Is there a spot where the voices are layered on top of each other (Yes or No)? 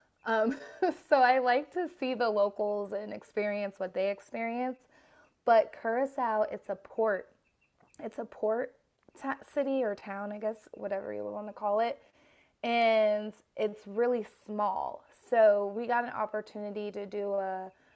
No